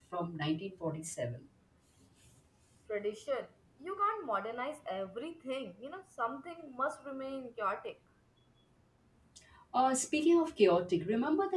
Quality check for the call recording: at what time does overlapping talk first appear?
none

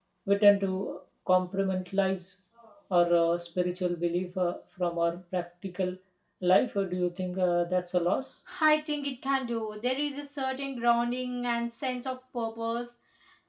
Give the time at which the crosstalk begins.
none

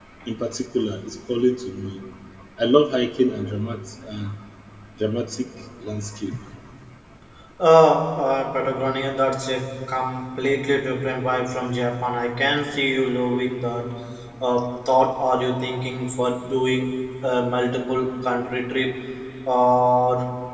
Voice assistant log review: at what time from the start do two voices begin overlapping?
none

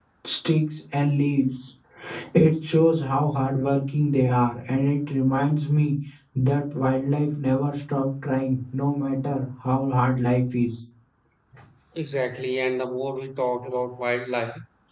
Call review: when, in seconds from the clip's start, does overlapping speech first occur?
none

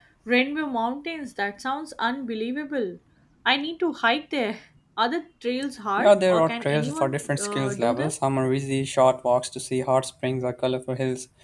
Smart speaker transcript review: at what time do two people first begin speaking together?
6 s

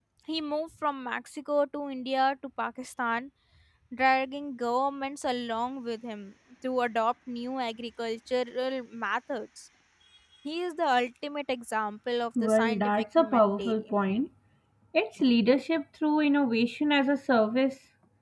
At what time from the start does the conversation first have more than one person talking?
12 s

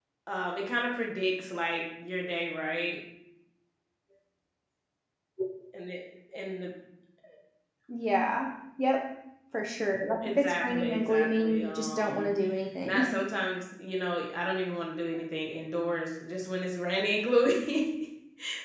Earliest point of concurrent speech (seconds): 10 s

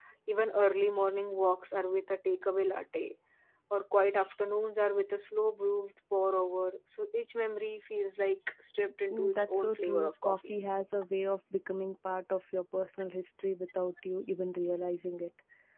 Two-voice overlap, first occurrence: 9 s

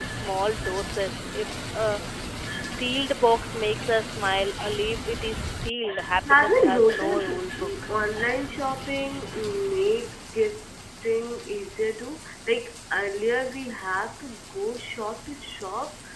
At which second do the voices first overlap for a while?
6 s

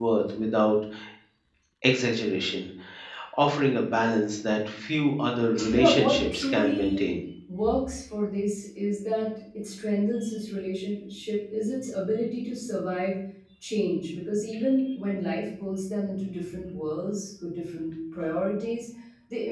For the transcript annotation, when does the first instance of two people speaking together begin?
6 s

